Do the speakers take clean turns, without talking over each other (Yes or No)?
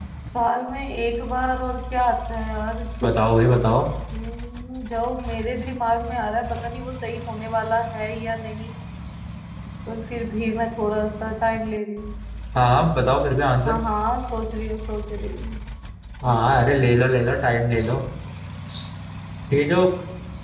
Yes